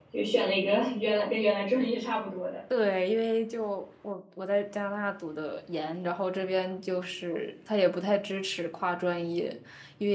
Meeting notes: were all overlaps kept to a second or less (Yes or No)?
Yes